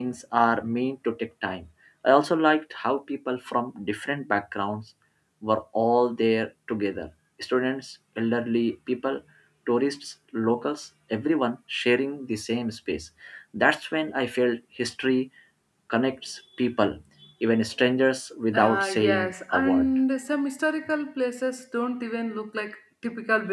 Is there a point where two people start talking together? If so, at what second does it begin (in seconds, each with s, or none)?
18.5 s